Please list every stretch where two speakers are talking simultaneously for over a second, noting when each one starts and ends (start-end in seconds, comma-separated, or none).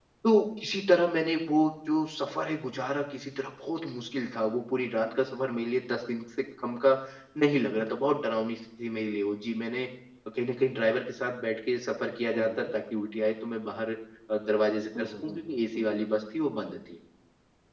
14.6-15.9